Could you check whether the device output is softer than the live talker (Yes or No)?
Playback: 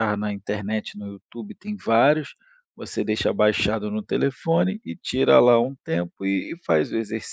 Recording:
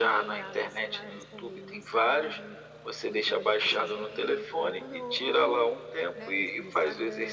No